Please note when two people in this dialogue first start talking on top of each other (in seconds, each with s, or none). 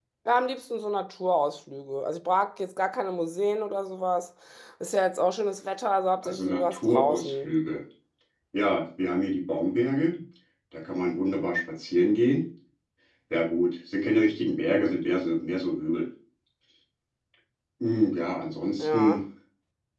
6.2 s